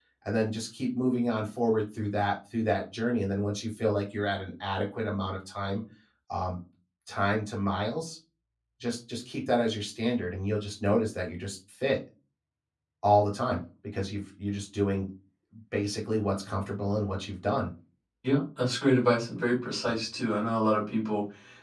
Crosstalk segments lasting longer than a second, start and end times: none

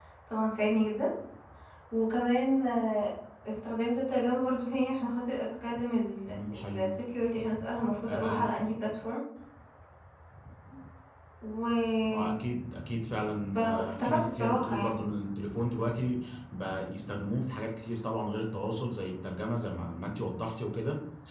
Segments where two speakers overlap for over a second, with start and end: 13.6-15.0

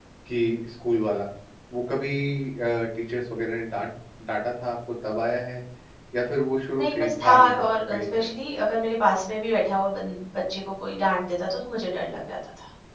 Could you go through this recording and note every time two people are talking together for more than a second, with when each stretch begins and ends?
6.8-8.3

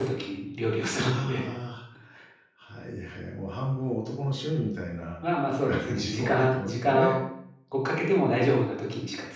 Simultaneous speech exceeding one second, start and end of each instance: 5.9-7.1

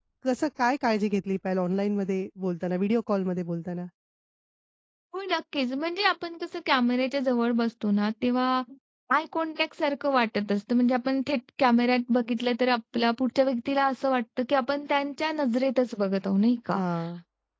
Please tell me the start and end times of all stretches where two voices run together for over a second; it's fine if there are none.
none

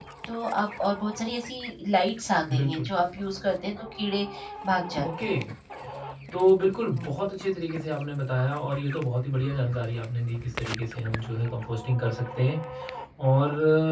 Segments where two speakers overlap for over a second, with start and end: none

